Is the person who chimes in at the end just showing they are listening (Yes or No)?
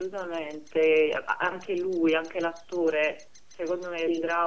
Yes